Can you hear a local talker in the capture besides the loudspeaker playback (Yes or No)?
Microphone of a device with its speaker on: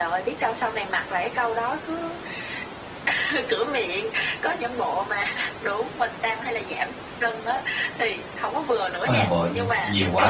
Yes